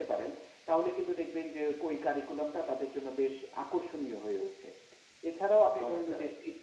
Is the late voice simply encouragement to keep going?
Yes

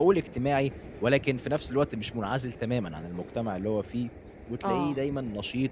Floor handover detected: No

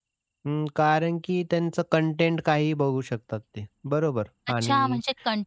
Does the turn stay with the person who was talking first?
No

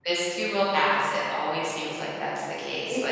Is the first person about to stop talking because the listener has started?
Yes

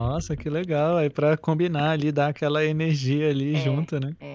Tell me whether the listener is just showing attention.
No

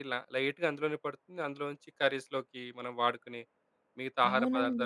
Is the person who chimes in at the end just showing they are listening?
No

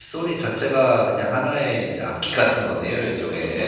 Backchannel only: No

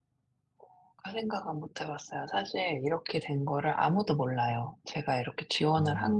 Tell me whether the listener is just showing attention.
Yes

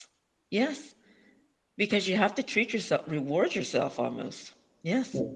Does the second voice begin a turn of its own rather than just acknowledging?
Yes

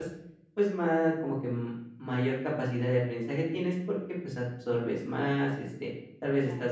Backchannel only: Yes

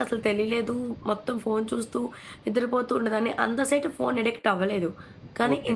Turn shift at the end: Yes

